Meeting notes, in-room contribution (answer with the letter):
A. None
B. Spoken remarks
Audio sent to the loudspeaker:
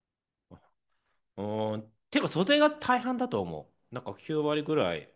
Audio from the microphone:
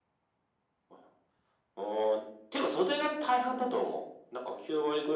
B